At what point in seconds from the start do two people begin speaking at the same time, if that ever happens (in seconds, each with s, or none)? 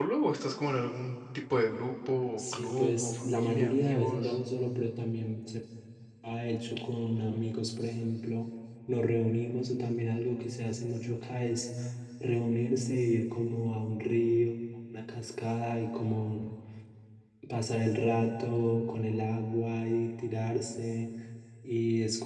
2.4 s